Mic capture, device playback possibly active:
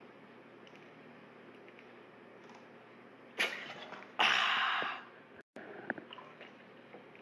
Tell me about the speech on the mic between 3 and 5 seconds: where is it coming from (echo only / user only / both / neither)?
neither